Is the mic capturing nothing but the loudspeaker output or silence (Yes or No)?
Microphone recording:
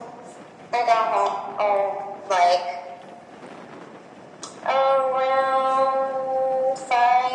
Yes